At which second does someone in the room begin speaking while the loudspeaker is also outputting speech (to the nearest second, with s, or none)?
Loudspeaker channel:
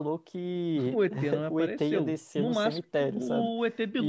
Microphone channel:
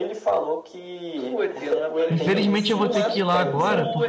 2 s